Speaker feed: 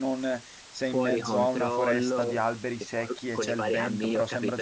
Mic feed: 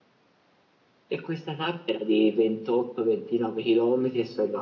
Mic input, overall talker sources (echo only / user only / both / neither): user only